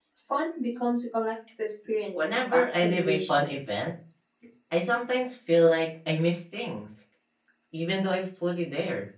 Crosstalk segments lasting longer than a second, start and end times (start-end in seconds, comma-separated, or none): 2.2-3.4